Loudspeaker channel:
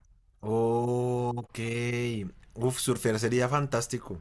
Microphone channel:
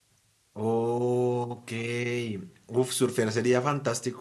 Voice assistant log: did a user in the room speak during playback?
No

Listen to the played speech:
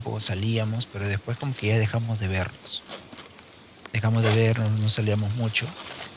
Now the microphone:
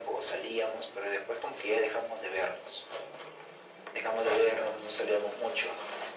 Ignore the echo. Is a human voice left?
No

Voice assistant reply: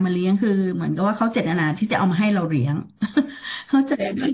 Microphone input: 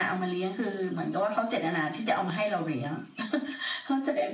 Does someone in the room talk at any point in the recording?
No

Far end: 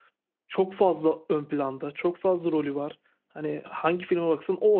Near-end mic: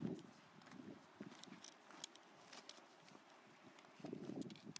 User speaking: No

